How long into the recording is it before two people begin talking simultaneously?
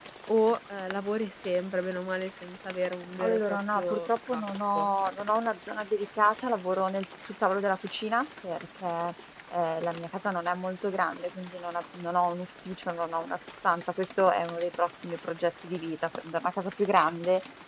3 s

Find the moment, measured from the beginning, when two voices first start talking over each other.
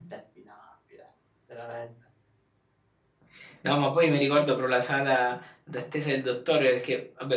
none

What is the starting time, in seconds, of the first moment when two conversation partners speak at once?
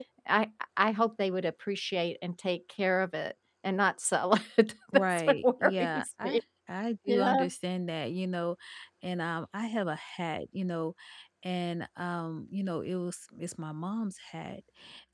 5 s

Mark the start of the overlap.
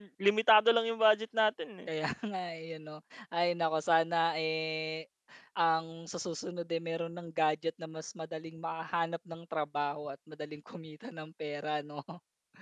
none

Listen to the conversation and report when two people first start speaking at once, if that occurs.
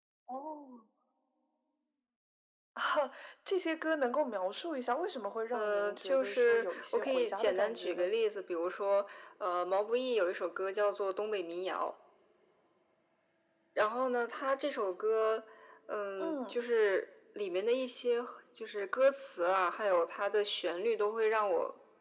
6 s

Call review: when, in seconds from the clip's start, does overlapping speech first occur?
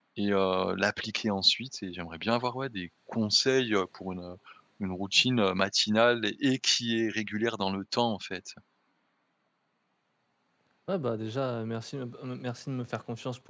none

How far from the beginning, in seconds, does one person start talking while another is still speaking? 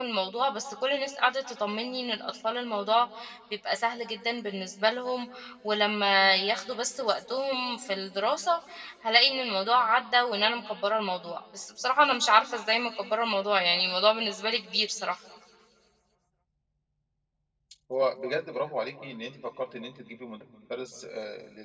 none

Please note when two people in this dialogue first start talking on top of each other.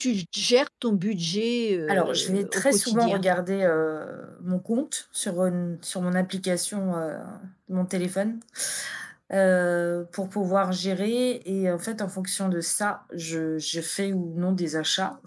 2 s

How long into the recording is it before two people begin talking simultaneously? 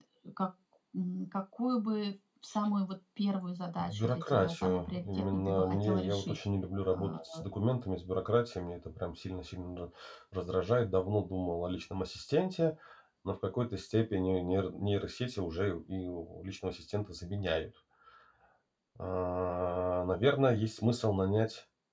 4 s

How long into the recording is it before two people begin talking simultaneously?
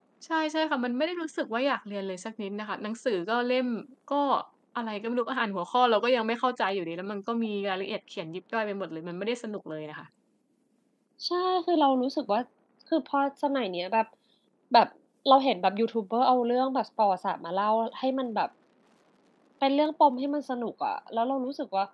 none

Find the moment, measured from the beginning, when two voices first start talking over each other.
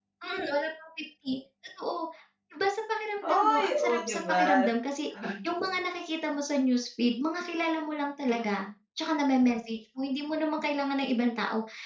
3 s

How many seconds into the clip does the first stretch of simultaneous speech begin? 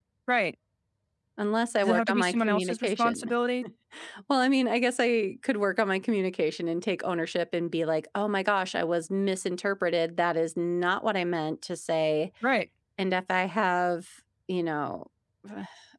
2 s

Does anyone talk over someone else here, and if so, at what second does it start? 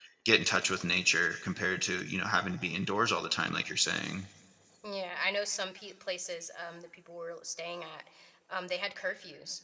none

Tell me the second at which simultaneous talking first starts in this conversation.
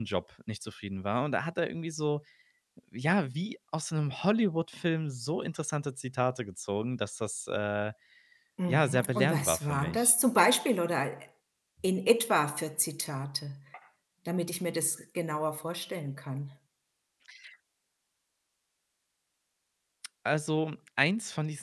9 s

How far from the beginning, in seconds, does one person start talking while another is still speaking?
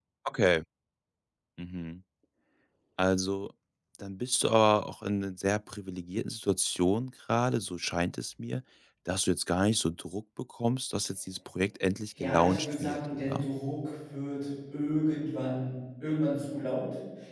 12 s

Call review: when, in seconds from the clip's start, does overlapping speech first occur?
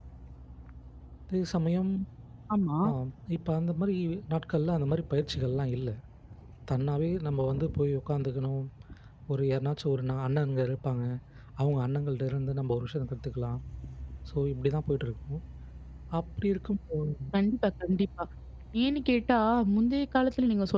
none

